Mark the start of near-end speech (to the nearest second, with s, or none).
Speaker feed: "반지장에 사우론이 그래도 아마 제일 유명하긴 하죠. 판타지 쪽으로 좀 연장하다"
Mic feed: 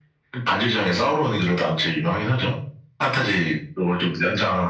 none